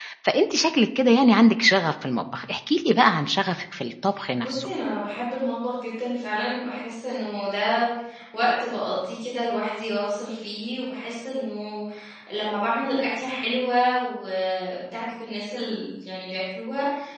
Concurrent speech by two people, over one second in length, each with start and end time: none

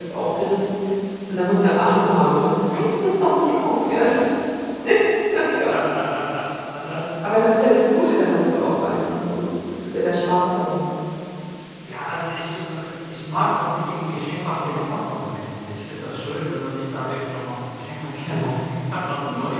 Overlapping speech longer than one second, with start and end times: none

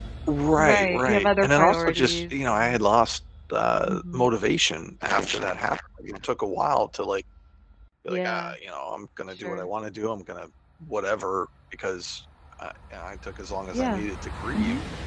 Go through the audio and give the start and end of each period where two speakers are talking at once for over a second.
0.6-2.8

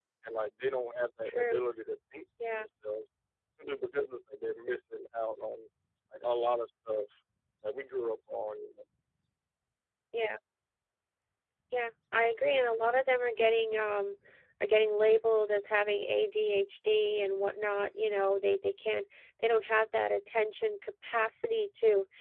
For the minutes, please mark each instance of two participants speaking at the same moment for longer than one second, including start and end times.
none

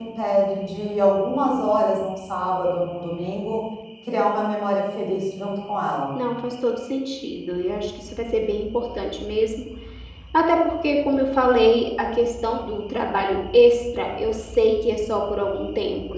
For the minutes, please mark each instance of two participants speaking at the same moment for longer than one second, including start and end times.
none

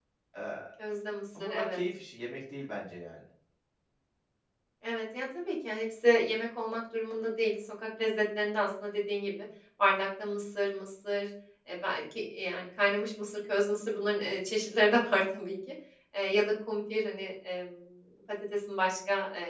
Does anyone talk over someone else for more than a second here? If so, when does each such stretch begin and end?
none

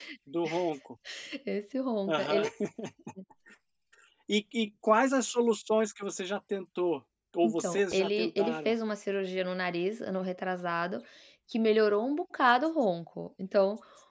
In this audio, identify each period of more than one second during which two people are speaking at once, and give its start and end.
7.4-8.7

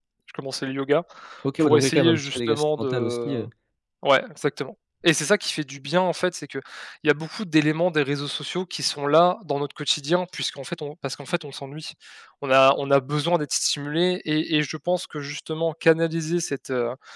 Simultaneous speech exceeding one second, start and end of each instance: 1.6-3.4

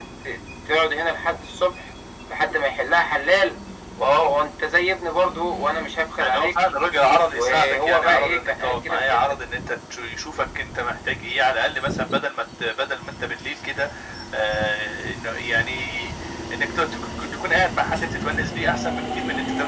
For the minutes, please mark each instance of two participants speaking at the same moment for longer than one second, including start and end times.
7.3-9.2

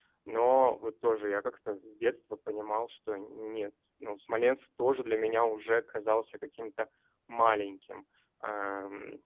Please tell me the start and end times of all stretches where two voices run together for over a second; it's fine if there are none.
none

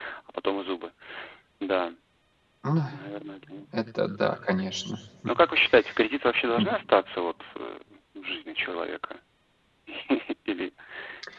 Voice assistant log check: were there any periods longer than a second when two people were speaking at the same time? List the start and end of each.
none

